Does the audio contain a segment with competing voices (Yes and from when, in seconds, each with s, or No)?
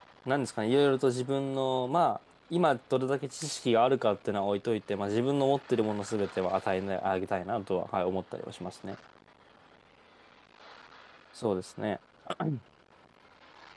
No